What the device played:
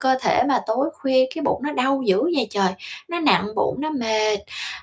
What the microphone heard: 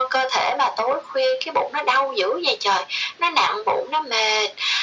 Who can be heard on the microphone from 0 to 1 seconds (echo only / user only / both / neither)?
echo only